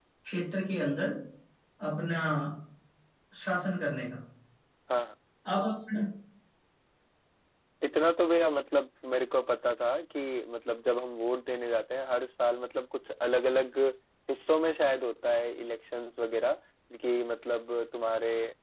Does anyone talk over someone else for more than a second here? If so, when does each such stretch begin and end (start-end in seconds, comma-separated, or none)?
none